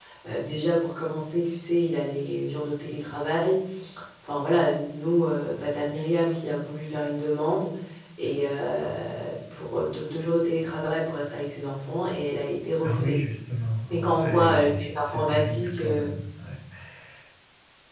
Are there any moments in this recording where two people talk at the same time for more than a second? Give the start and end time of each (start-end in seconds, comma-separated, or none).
13.9-16.0